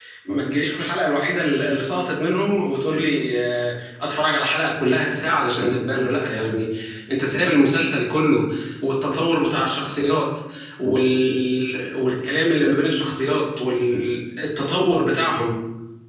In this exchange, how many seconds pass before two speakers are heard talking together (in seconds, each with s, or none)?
none